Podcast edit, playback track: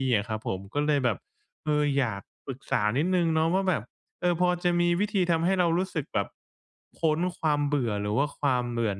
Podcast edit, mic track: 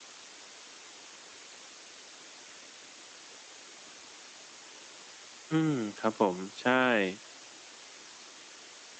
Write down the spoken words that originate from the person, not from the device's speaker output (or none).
อืม ครับผม ใช่